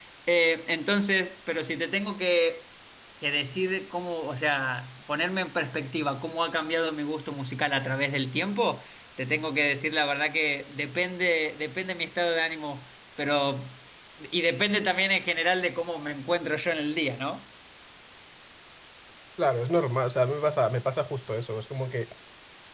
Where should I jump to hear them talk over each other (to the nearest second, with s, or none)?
none